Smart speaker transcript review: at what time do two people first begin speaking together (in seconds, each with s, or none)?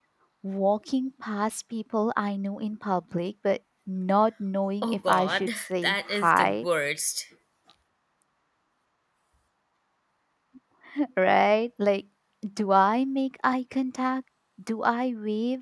4.8 s